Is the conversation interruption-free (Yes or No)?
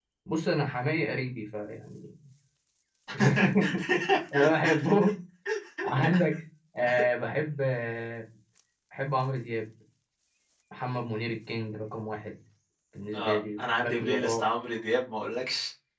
No